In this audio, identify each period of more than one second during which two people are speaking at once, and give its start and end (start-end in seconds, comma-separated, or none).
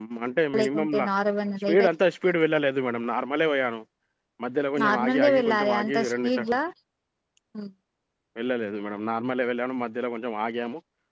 4.8-6.5